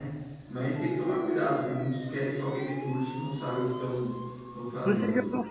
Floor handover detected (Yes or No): Yes